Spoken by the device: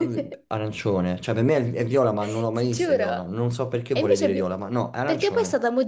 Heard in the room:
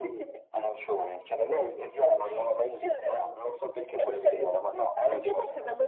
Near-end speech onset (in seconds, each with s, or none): none